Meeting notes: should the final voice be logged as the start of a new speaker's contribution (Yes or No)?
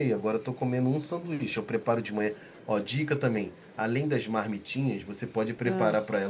No